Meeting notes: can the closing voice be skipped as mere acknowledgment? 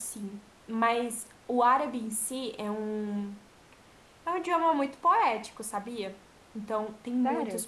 Yes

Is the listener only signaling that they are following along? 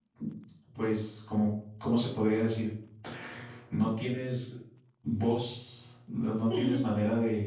Yes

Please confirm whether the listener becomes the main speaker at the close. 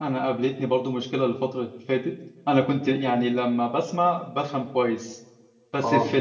No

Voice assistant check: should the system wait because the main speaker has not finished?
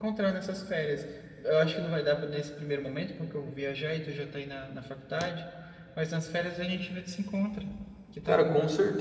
No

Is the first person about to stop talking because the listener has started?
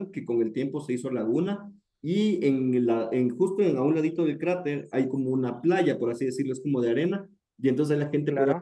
No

